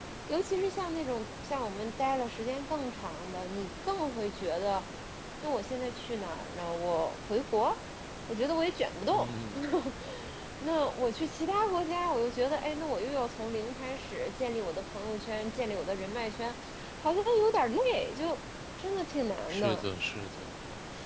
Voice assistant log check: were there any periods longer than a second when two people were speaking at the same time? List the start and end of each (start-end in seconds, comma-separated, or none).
none